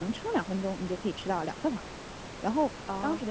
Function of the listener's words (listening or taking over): listening